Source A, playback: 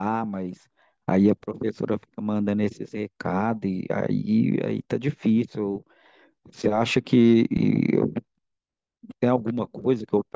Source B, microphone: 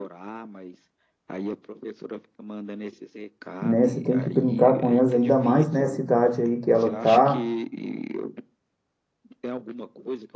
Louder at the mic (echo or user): user